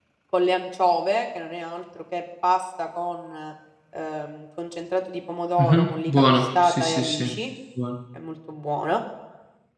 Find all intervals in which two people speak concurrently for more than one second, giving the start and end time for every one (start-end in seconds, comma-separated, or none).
5.6-7.3